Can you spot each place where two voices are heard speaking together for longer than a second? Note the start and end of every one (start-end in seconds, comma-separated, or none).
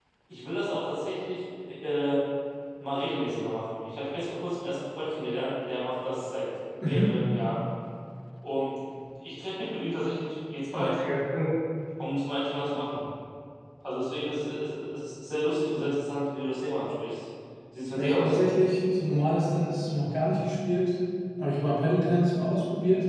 none